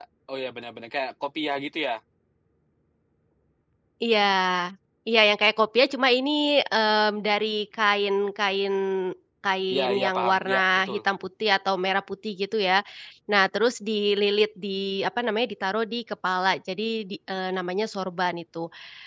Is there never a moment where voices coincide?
No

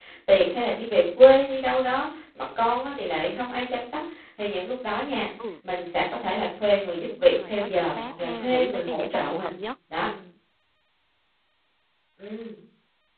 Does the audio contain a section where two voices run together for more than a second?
Yes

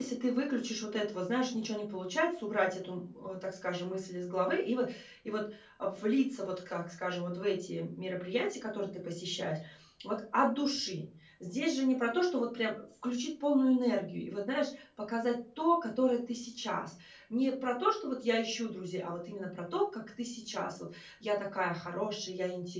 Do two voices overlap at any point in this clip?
No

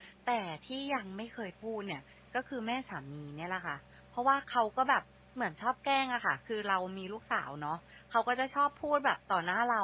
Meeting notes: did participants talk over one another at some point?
No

